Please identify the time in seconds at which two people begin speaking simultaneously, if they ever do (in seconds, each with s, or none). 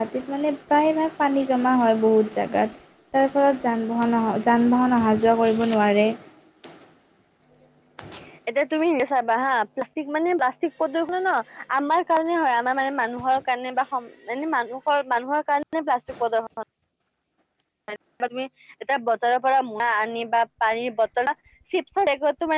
none